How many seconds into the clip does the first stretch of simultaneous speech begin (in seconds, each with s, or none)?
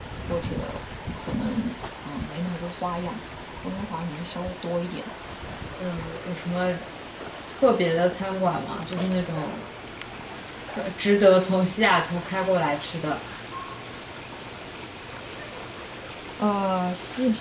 none